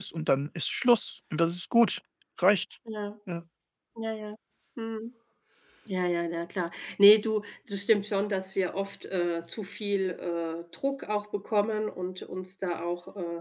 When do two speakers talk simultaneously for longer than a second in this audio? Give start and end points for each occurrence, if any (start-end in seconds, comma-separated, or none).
none